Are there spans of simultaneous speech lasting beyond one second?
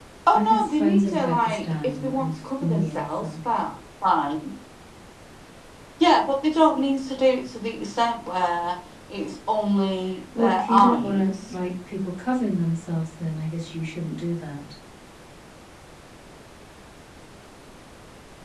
Yes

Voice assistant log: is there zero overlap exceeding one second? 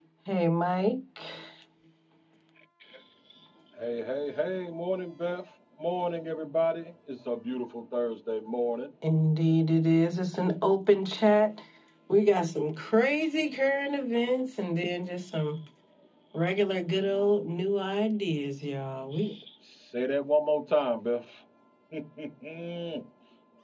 Yes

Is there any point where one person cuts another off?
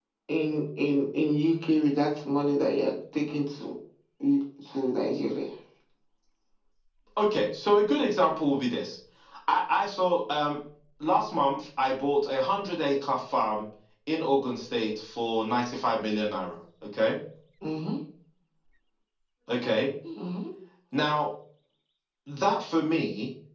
No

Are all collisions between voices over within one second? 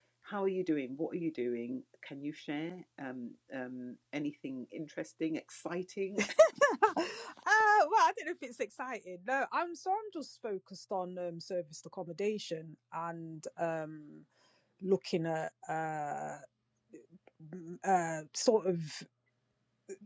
Yes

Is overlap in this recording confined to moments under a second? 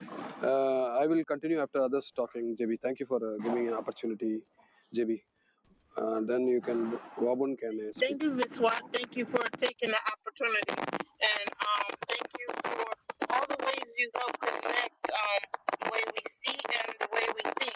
Yes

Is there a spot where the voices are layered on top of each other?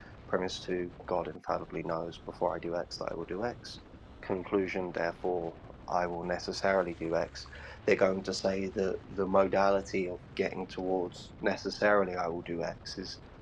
No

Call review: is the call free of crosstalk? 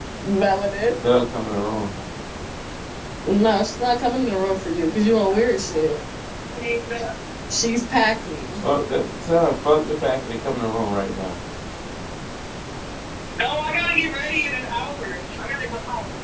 Yes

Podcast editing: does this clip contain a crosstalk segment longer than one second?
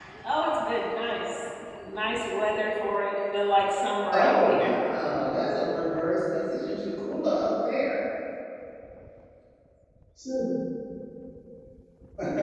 No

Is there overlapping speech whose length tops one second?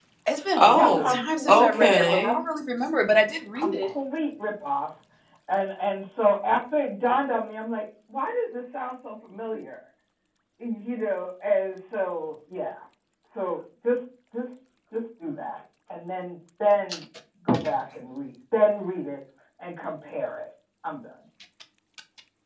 Yes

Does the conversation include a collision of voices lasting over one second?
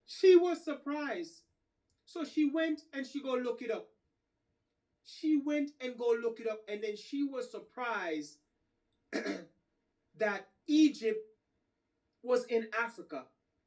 No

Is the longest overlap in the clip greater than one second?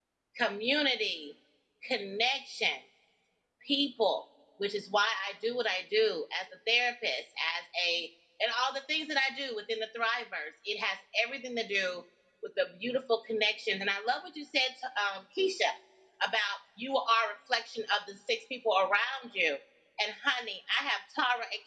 No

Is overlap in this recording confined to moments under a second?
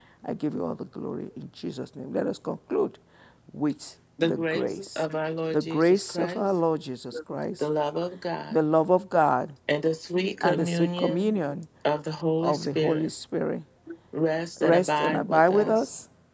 No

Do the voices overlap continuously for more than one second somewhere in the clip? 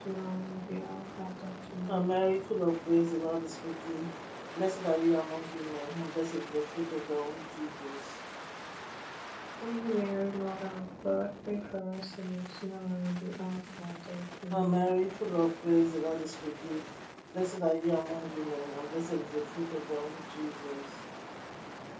No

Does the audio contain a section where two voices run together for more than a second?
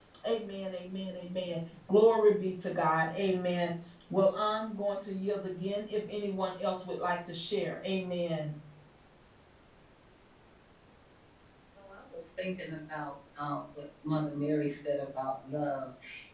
No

